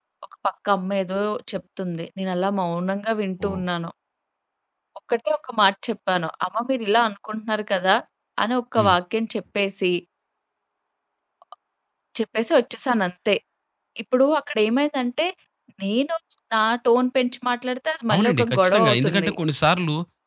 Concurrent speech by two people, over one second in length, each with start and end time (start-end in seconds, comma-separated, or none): 18.1-19.3